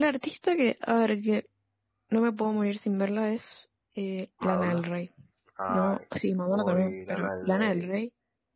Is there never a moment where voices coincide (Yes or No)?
No